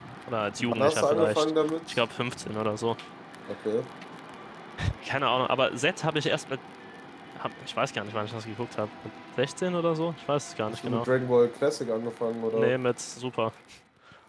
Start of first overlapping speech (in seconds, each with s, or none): 0.6 s